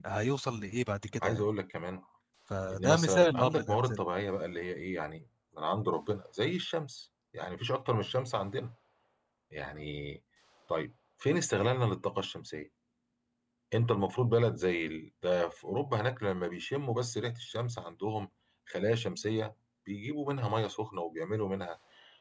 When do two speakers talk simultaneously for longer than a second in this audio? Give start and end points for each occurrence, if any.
2.7-4.0

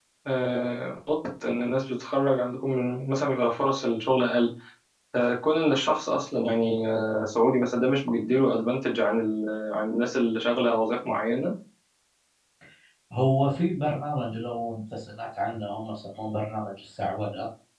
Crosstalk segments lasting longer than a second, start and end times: none

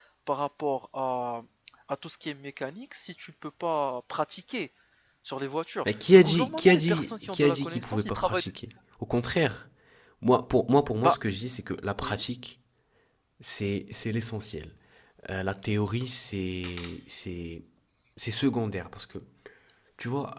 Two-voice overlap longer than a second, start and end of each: 6.1-8.4

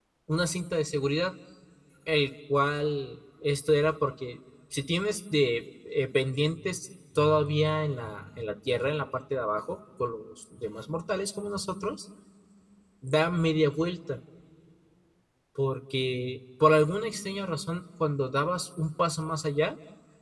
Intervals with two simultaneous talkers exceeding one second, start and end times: none

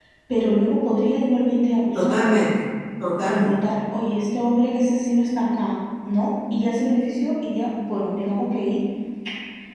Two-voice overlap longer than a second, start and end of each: none

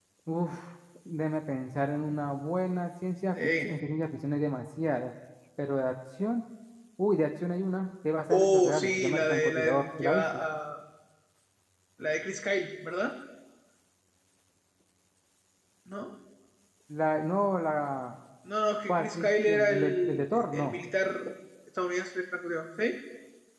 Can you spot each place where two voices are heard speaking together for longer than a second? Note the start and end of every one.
8.3-10.2, 18.9-20.8

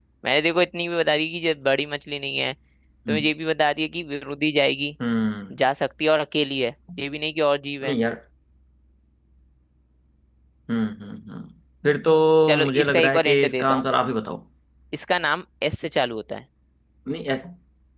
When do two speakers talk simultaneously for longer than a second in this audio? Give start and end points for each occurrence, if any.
12.6-13.9

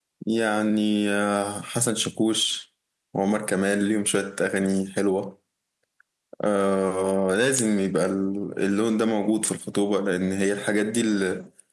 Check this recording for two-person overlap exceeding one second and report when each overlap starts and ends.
none

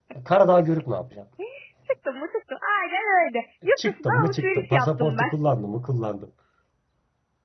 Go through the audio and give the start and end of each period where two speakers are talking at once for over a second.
3.9-5.3

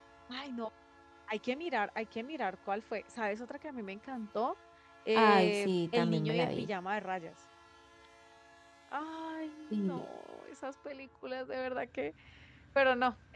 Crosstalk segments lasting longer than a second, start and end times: 5.1-6.7

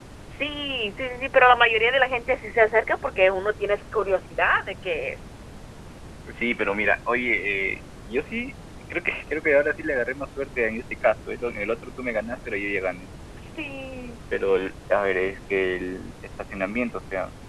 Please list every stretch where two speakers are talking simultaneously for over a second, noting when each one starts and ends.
none

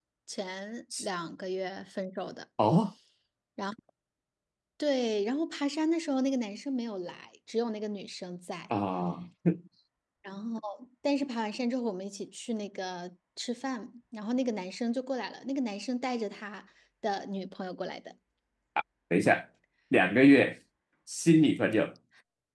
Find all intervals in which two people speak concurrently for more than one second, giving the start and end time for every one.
none

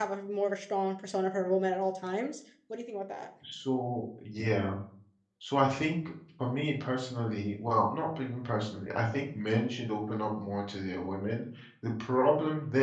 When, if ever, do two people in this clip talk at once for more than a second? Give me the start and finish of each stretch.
none

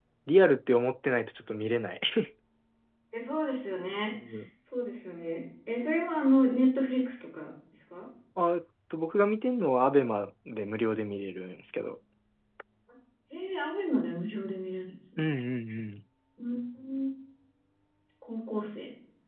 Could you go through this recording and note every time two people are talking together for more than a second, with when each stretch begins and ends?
none

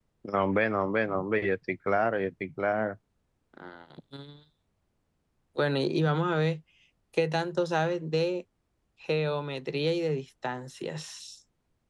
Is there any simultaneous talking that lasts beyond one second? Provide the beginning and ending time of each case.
none

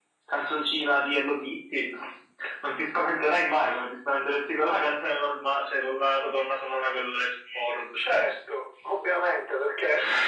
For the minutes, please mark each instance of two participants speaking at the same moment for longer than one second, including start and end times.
none

